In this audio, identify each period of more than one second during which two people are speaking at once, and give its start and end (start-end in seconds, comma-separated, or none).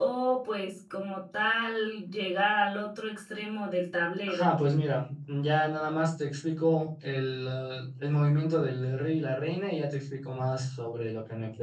none